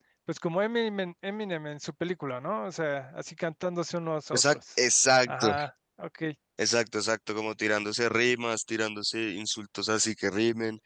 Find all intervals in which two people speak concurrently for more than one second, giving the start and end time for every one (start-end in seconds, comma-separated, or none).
none